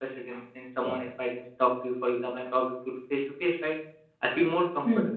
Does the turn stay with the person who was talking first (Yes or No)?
Yes